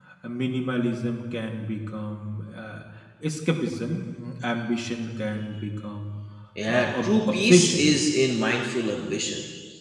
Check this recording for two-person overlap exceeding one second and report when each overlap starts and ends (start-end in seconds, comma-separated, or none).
6.7-7.9